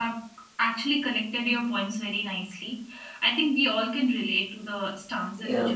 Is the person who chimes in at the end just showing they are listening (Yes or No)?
No